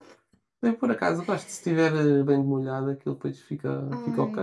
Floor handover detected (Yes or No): Yes